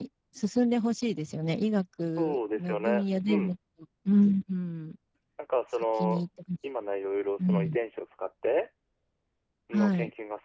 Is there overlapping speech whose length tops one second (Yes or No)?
Yes